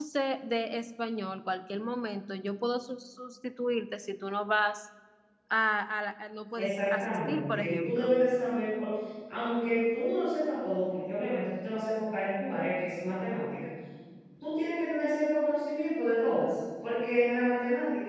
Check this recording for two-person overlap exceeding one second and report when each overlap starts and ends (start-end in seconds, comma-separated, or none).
6.6-8.1